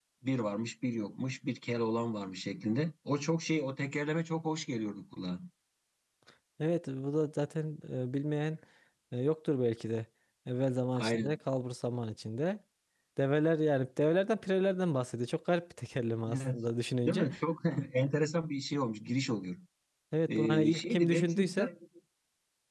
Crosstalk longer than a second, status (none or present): present